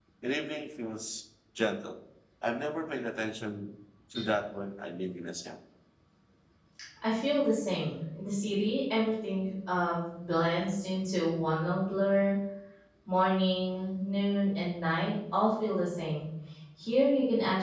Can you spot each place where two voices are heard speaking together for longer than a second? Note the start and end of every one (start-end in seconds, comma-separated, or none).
none